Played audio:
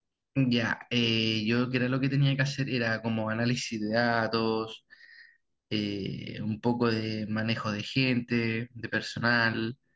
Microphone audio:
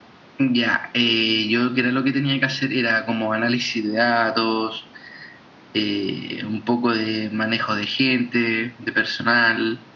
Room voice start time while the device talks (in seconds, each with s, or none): none